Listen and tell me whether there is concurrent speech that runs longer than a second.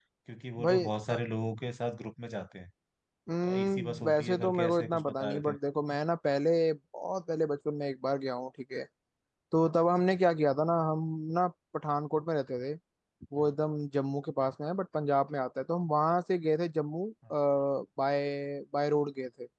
Yes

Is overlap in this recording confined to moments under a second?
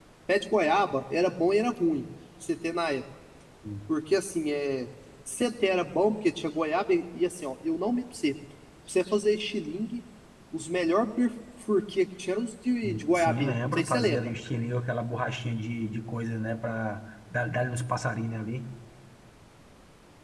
No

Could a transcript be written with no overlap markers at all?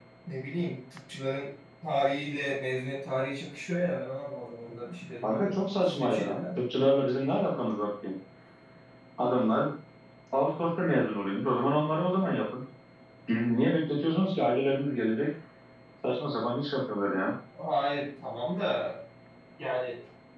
No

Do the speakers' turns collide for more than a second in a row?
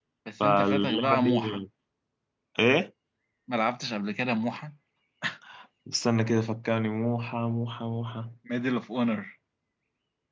Yes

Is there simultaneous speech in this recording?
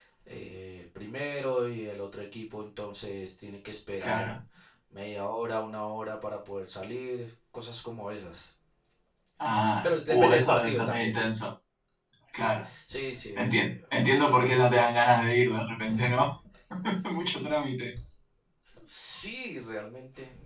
Yes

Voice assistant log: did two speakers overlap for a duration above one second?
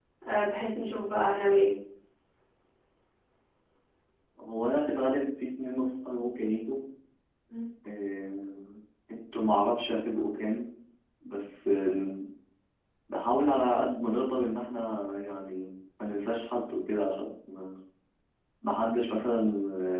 No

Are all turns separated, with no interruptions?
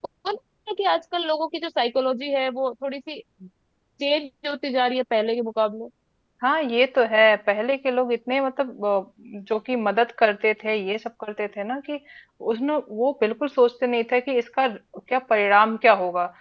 Yes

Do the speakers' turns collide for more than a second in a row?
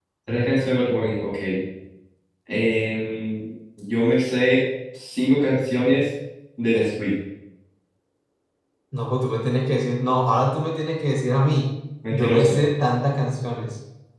No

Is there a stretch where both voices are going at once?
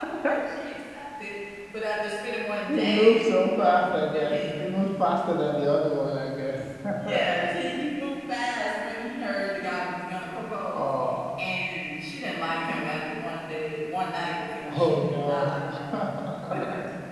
Yes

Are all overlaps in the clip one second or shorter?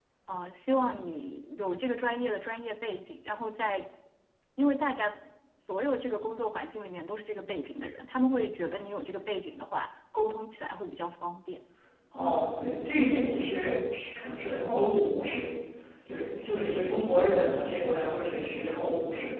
Yes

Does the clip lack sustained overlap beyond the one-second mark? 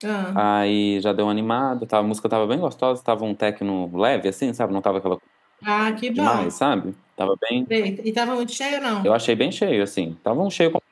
Yes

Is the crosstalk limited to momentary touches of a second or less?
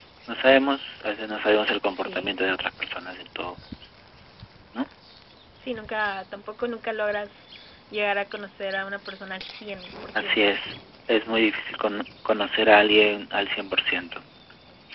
Yes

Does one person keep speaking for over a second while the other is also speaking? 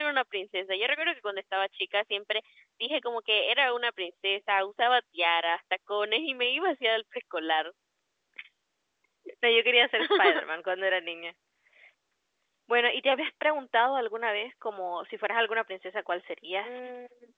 No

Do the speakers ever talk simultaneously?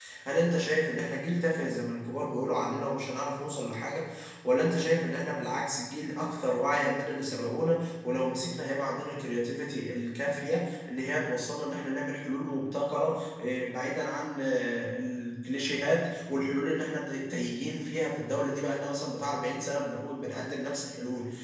No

